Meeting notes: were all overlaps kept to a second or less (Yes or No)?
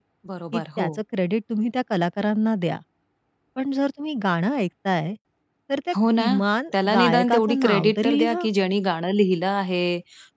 No